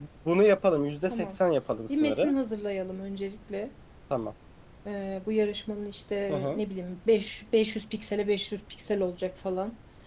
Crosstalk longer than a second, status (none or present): none